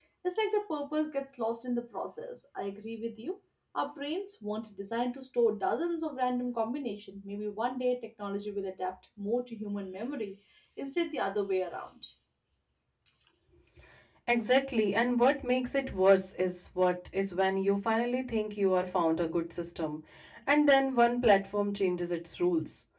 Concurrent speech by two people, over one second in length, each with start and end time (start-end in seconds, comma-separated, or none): none